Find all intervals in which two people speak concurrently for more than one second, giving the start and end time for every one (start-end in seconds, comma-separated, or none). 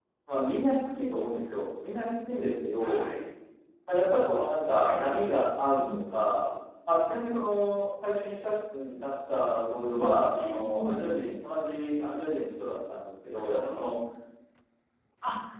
9.7-11.2